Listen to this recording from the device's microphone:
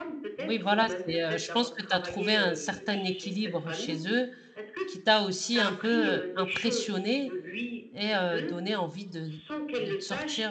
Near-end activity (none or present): present